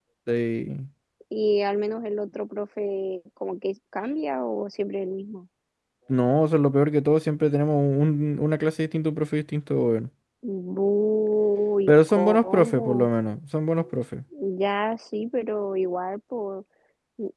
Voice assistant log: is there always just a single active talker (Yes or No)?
No